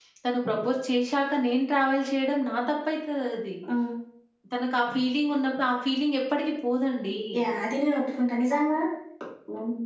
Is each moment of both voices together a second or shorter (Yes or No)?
Yes